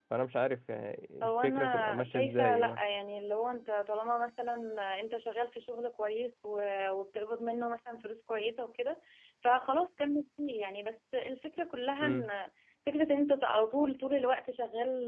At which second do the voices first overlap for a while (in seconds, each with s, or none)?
1.2 s